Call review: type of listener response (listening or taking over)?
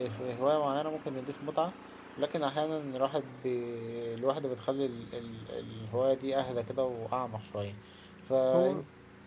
listening